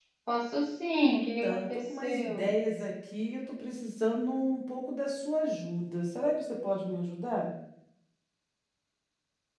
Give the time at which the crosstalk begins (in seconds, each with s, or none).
1.0 s